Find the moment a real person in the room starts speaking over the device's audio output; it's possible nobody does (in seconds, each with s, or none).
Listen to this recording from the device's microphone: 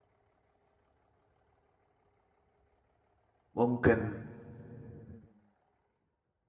3.5 s